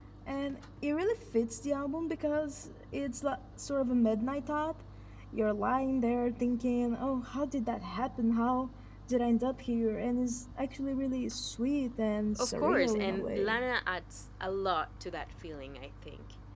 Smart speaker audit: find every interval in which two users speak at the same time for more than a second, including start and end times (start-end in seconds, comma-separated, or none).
12.4-13.6